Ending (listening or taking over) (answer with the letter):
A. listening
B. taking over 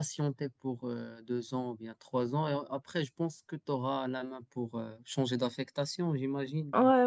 B